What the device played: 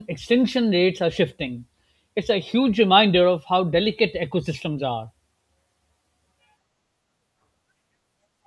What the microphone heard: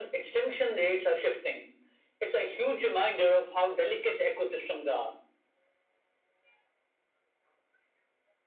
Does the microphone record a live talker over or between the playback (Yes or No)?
No